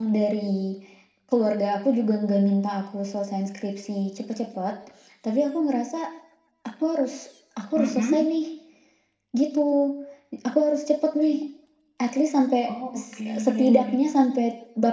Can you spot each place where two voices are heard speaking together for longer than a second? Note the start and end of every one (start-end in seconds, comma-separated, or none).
12.7-13.9